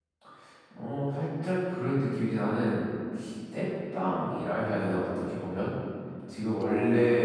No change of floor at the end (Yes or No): Yes